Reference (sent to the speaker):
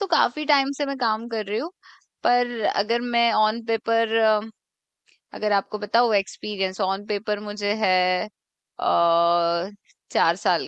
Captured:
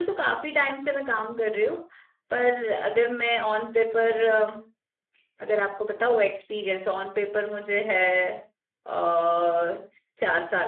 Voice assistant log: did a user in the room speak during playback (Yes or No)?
No